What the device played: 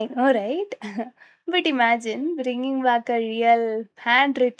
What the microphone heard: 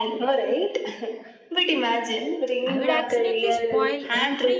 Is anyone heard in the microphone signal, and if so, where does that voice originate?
both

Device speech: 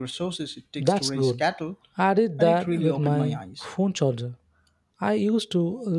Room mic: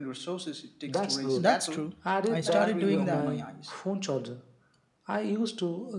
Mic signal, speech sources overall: both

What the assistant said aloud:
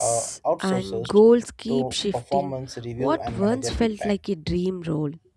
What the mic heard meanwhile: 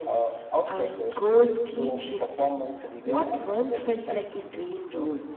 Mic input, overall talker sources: echo only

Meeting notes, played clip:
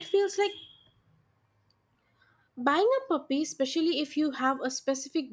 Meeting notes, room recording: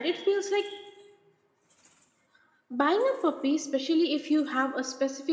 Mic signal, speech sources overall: echo only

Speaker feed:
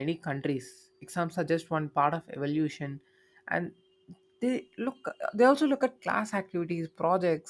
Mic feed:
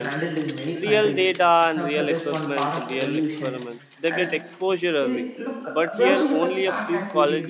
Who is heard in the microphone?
both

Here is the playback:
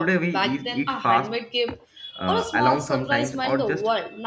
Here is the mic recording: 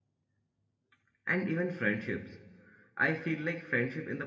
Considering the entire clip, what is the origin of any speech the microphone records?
user only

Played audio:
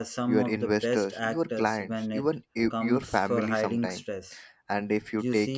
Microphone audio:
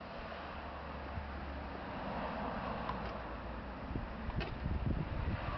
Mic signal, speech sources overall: neither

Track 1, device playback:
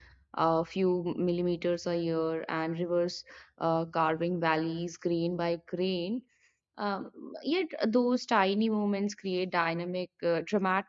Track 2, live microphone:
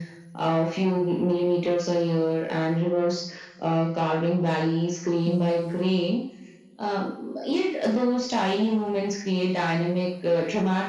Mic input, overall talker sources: both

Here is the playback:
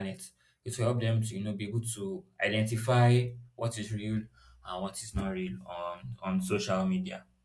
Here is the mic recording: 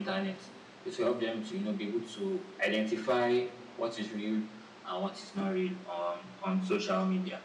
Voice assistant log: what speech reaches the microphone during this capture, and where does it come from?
echo only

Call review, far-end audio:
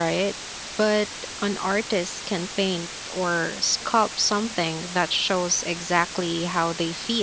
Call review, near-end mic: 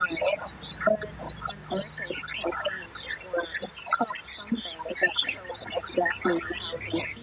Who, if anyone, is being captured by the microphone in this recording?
echo only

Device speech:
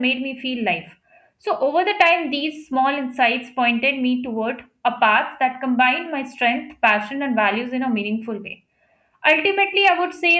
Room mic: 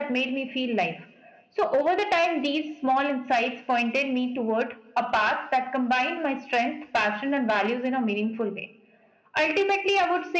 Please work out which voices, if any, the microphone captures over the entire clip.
echo only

